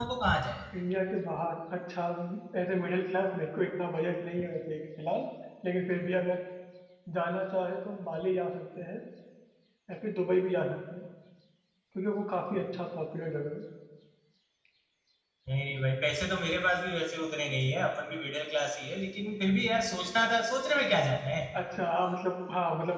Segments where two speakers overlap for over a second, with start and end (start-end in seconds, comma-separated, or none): none